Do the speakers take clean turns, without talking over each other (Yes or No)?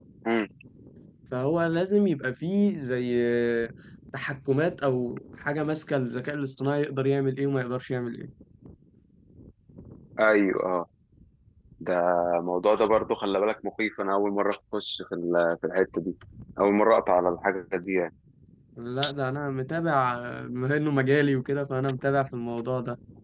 Yes